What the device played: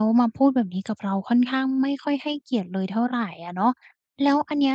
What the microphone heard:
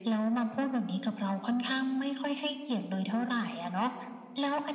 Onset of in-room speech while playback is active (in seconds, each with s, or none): none